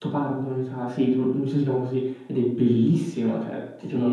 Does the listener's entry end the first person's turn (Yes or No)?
Yes